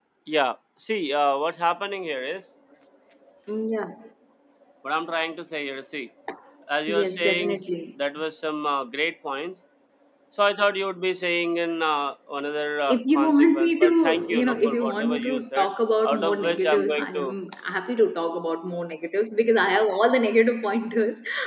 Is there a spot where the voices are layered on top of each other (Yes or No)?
Yes